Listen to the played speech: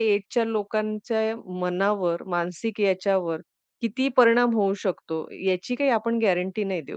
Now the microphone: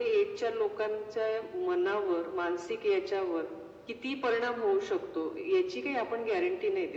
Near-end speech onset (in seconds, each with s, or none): none